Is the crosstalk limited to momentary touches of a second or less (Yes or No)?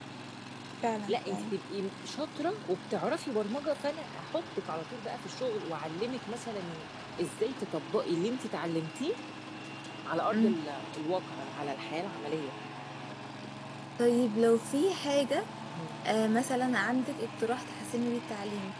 Yes